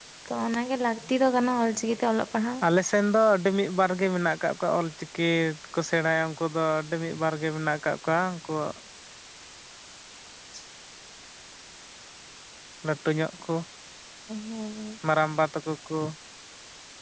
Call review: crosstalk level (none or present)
none